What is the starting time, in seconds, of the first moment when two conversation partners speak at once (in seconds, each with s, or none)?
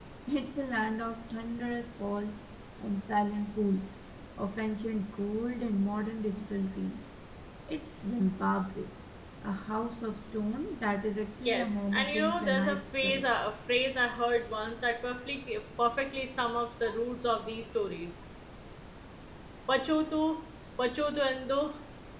11.4 s